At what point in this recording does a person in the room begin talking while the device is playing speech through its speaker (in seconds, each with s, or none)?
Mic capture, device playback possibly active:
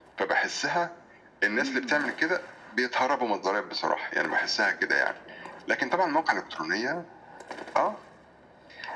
1.6 s